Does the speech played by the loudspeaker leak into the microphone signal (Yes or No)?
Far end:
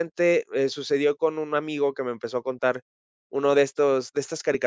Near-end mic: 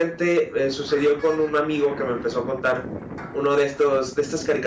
Yes